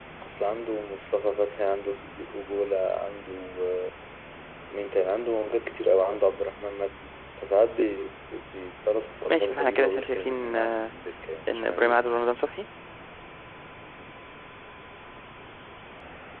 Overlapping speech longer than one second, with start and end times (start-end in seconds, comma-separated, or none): 9.3-10.9